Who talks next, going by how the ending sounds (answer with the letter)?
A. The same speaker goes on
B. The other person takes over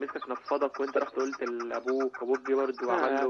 B